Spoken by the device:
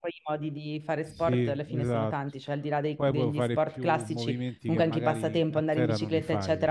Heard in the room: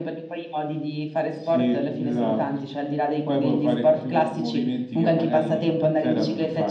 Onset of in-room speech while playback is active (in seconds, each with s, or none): none